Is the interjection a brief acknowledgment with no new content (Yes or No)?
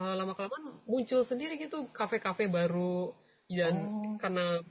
Yes